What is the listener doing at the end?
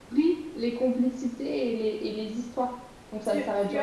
taking over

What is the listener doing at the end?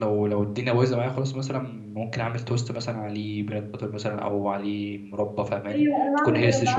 taking over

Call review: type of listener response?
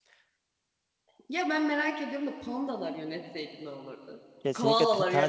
taking over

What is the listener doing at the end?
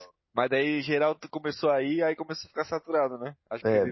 taking over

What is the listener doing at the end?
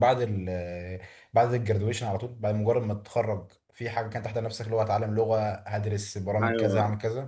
taking over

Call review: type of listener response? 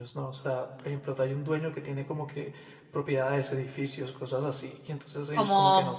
taking over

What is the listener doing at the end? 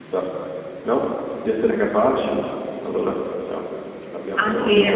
taking over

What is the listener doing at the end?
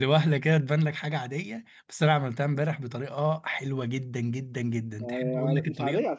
taking over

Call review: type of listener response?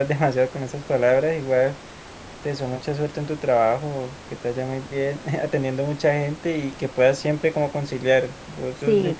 listening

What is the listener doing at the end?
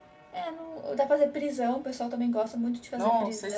taking over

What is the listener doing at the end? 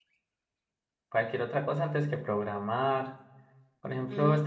listening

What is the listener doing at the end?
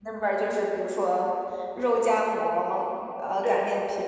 listening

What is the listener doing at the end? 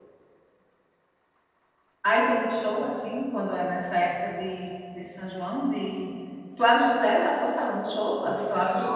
taking over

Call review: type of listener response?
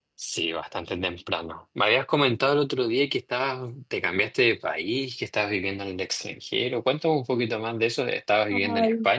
taking over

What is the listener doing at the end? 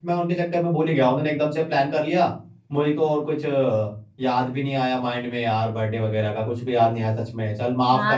taking over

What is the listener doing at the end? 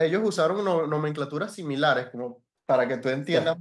listening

